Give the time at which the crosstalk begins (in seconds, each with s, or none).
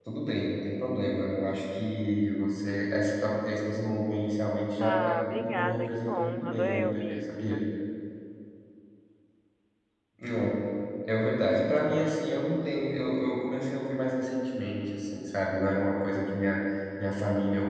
4.8 s